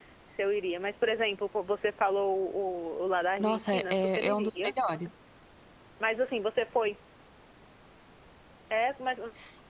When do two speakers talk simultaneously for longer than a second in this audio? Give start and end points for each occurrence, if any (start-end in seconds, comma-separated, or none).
3.4-4.7